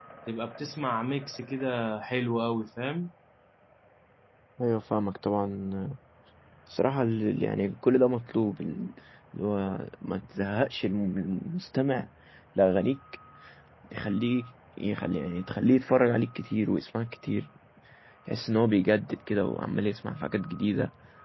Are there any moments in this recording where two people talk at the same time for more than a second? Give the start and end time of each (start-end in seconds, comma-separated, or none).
none